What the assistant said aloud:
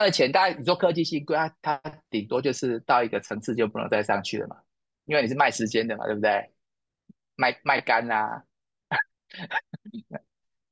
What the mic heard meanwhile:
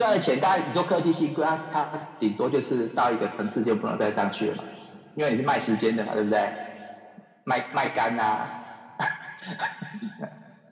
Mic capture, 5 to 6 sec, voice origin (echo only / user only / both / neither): echo only